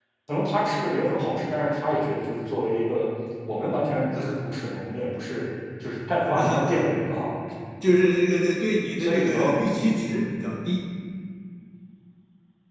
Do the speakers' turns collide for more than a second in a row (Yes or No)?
No